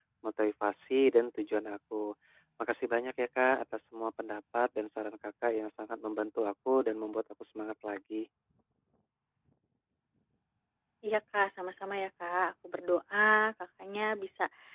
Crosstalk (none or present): none